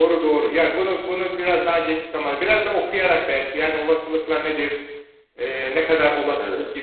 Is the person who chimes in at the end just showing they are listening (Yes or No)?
Yes